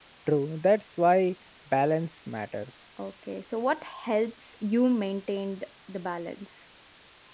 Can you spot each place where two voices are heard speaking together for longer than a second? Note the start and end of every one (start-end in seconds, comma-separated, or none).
none